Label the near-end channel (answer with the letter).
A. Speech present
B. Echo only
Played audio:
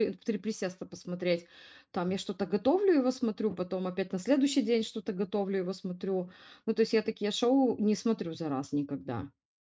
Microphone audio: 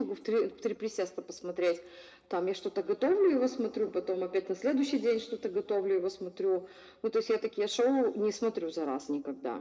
B